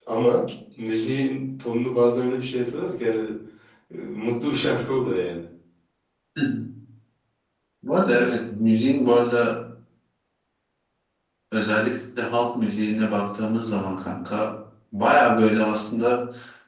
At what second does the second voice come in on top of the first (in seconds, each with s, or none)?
none